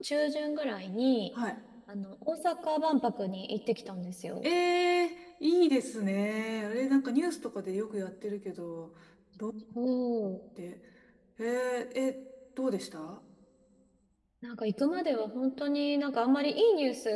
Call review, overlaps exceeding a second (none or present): none